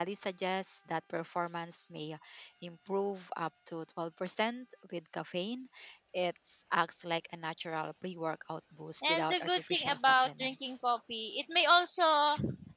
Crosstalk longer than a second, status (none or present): present